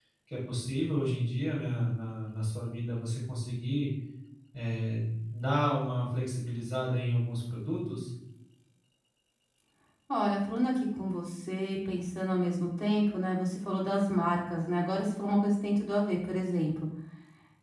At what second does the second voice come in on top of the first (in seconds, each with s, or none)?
none